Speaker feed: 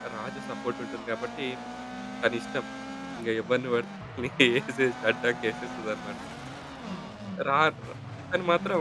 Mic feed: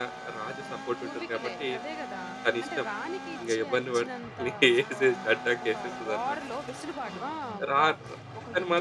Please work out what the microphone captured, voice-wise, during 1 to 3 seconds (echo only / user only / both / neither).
both